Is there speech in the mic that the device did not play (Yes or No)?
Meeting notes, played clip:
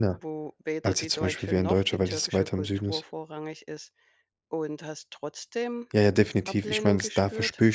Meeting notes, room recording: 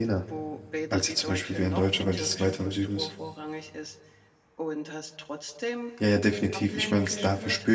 No